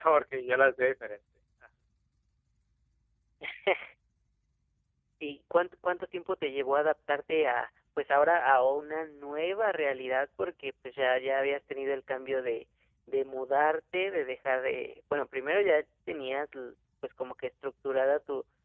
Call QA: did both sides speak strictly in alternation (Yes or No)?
Yes